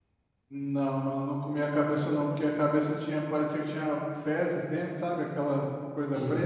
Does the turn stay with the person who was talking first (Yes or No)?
No